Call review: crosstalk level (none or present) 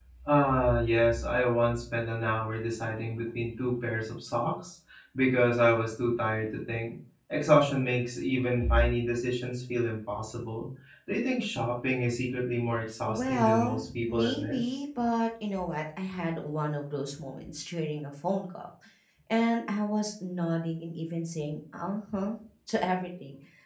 present